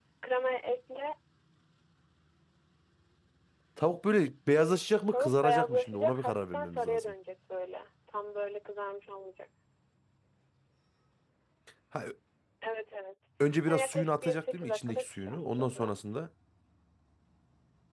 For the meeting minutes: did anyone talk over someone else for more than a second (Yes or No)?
Yes